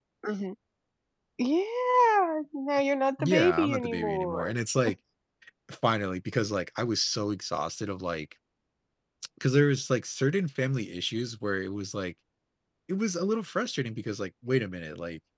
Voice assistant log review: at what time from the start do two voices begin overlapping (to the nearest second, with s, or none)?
3 s